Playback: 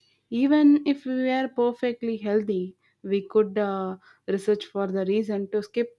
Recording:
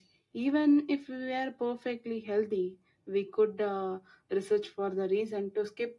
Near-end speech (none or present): none